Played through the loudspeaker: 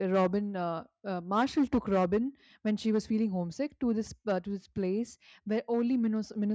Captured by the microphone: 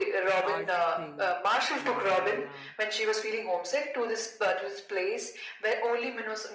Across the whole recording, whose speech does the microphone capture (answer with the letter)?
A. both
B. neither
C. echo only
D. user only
A